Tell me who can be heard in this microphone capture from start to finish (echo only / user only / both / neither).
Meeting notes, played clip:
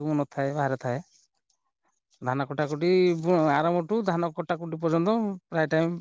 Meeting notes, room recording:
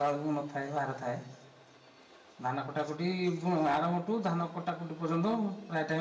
echo only